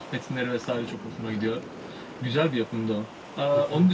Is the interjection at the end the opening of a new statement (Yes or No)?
No